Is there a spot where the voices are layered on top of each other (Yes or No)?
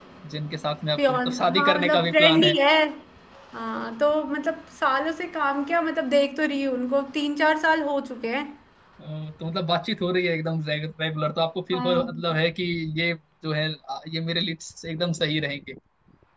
Yes